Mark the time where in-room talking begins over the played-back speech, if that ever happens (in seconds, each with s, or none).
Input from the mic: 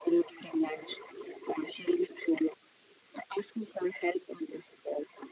none